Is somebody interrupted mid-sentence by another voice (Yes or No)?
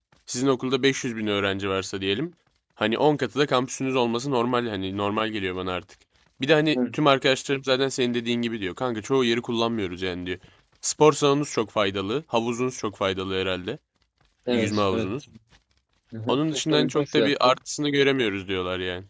Yes